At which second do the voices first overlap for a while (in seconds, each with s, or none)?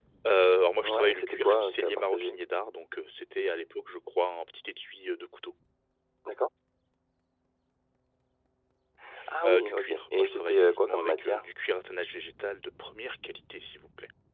0.8 s